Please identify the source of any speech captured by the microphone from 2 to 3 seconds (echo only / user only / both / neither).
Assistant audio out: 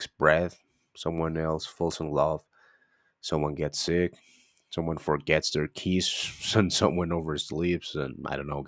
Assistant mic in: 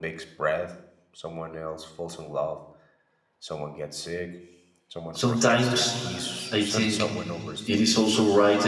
echo only